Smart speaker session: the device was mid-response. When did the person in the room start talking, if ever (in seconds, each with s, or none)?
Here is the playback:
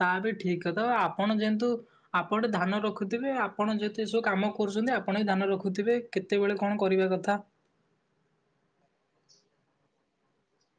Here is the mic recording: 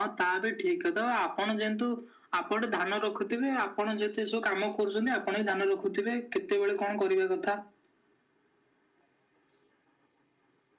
none